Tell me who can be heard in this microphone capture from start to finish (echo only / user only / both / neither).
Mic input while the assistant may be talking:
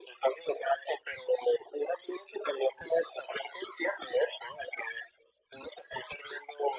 echo only